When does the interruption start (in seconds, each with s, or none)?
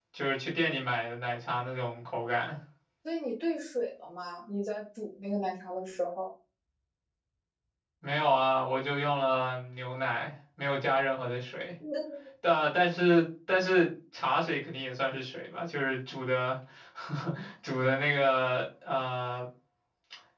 none